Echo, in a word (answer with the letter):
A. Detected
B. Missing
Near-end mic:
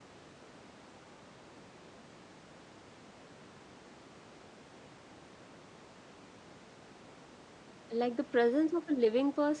B